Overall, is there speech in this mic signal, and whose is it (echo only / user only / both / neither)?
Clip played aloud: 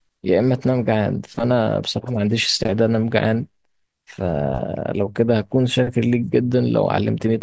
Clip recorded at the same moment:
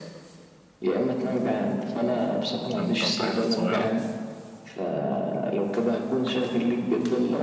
both